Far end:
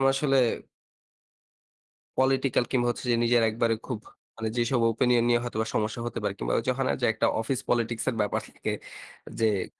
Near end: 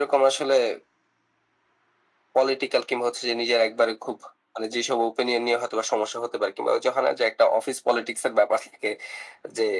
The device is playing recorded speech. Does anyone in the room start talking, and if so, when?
none

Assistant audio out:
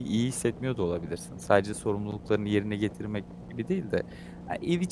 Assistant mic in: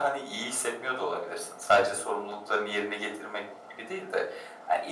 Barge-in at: none

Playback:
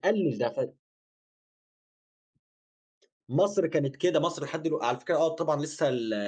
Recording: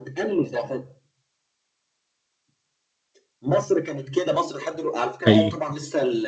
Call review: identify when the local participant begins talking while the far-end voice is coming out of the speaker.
5.3 s

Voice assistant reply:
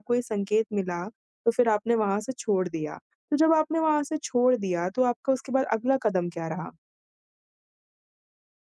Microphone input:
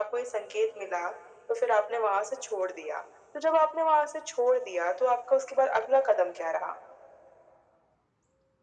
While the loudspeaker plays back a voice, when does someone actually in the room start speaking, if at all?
none

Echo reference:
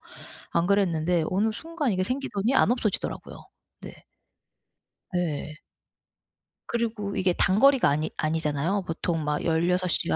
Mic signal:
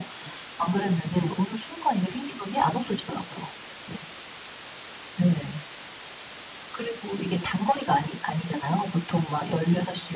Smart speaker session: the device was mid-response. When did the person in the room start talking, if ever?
none

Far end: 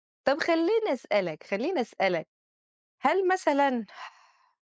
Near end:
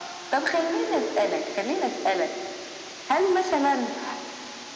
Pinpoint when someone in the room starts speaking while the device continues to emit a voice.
none

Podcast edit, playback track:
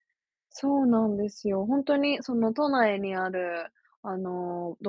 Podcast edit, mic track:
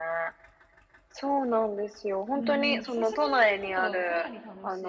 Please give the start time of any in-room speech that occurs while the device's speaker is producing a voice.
2.3 s

